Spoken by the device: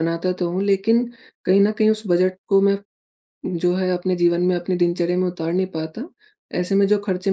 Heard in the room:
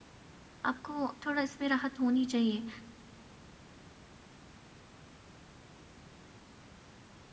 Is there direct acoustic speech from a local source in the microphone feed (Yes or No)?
Yes